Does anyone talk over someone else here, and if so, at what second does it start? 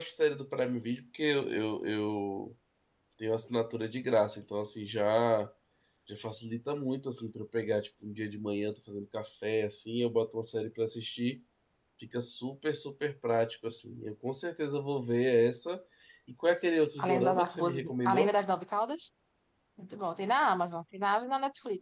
17.0 s

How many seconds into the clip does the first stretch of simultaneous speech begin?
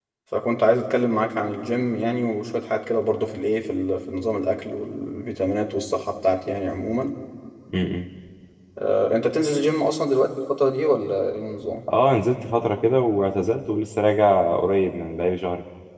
none

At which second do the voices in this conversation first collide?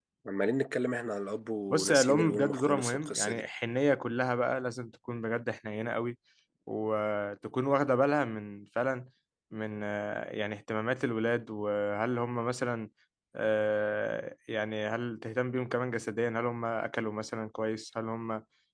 1.7 s

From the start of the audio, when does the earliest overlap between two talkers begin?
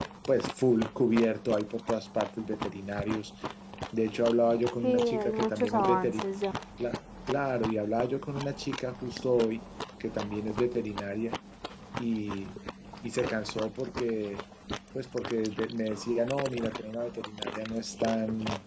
4.8 s

